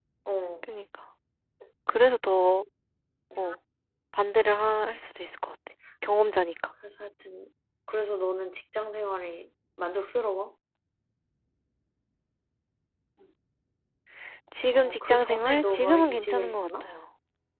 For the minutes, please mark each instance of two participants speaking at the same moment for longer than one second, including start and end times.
14.7-16.9

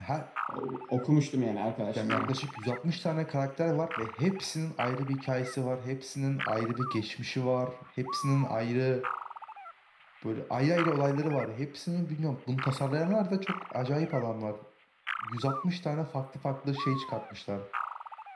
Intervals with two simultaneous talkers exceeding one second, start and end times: none

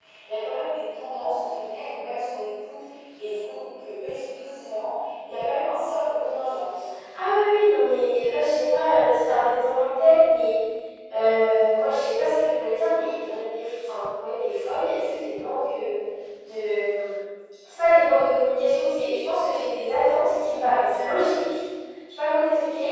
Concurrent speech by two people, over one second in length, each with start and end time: none

